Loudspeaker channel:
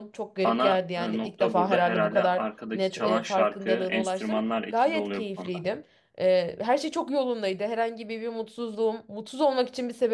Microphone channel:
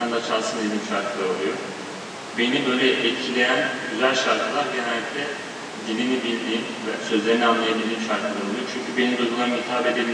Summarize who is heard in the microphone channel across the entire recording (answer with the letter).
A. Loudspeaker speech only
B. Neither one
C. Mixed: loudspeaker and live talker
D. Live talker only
D